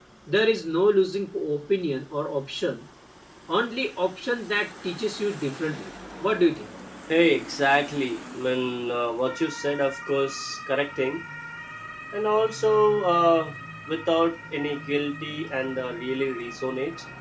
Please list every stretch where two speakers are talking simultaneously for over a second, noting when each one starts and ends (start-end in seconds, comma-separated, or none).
none